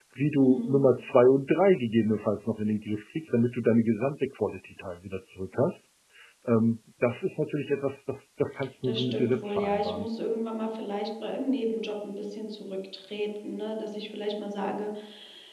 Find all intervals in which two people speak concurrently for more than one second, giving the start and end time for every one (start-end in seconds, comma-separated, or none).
8.8-10.1